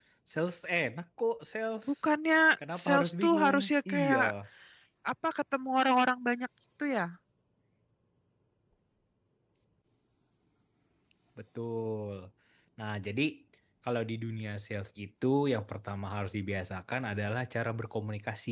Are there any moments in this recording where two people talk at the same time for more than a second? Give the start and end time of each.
2.8-4.2

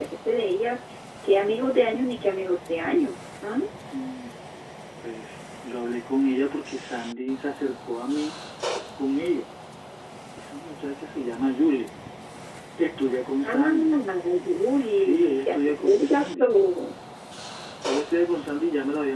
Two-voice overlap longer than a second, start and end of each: 15.0-16.5

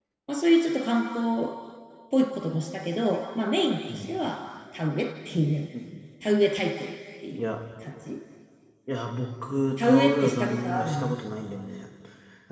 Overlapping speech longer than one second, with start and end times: 9.8-11.1

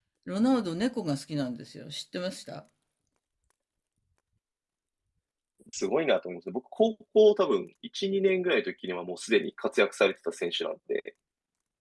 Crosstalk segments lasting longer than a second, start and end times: none

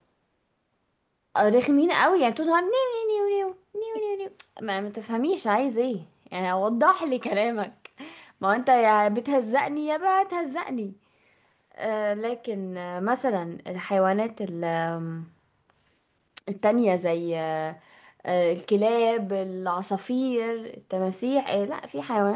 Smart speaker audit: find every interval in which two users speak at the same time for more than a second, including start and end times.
none

